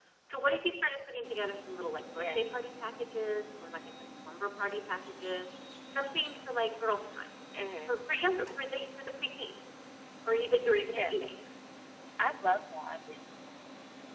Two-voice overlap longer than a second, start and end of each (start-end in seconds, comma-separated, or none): none